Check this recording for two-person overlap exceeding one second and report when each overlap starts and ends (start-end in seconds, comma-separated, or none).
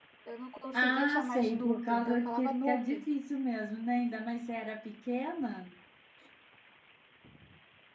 0.7-3.0